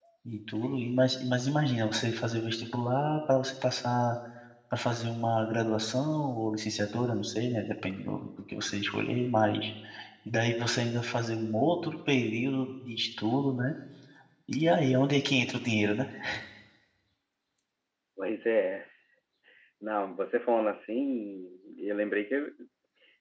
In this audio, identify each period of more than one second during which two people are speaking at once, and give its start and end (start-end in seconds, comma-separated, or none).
none